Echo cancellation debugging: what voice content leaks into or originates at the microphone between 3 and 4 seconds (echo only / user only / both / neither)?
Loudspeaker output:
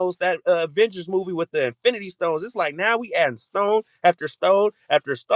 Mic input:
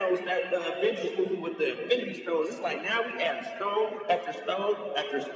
echo only